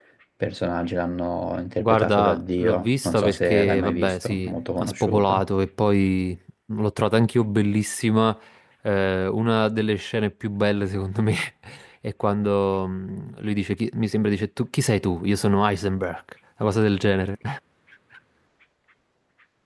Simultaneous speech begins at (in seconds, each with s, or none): 1.8 s